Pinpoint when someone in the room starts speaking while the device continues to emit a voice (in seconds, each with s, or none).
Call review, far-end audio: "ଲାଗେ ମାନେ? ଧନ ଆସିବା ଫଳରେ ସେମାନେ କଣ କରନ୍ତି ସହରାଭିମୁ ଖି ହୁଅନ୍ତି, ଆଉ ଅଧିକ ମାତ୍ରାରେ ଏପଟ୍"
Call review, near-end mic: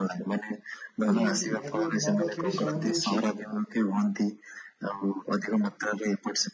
1.1 s